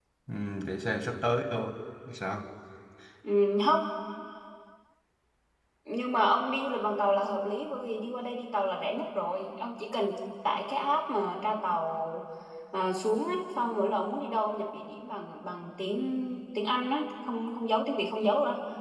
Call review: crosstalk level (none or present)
none